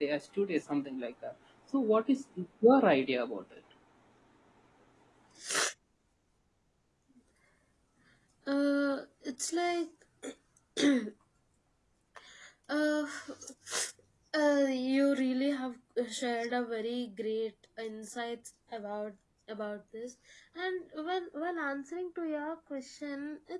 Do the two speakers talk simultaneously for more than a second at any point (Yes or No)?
No